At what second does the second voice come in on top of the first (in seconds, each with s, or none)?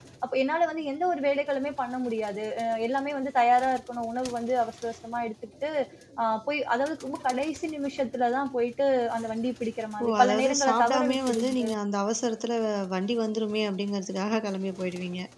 10.0 s